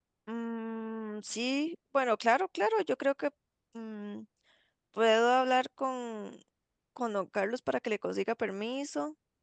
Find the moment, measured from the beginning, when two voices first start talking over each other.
none

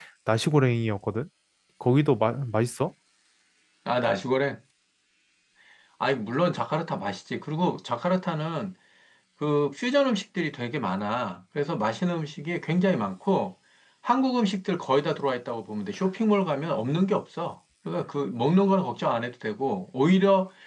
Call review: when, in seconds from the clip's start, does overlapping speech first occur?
none

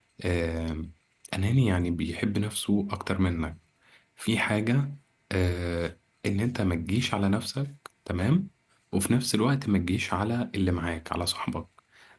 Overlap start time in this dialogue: none

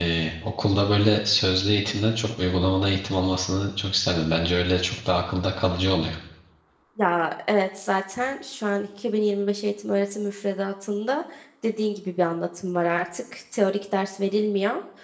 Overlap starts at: none

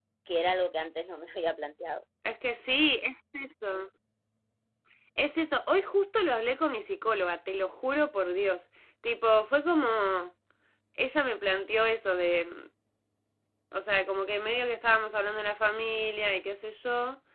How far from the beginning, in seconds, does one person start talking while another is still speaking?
none

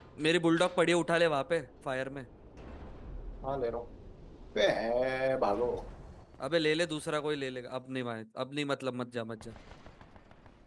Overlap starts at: none

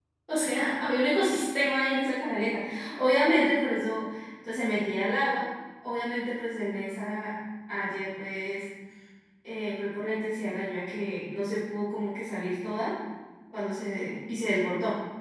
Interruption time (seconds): none

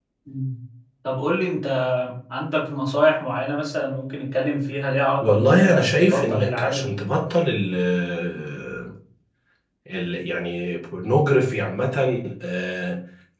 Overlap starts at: 5.2 s

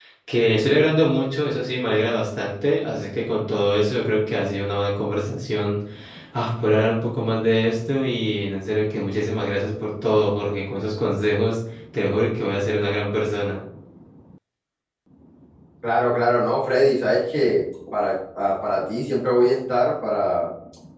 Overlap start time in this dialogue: none

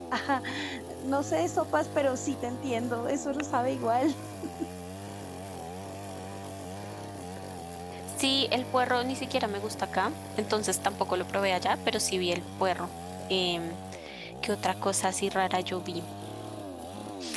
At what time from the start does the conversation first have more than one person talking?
none

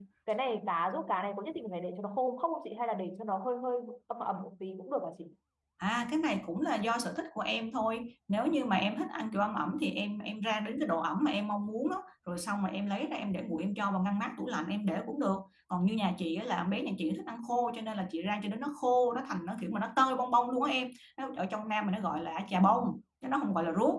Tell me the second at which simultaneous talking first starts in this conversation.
none

